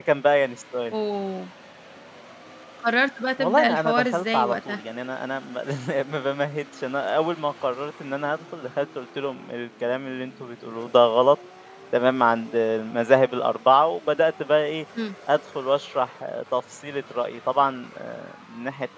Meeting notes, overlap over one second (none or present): present